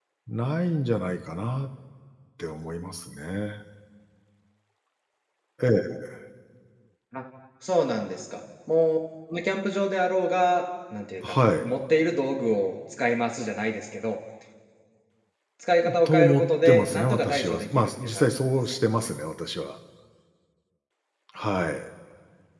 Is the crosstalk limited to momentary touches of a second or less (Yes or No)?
No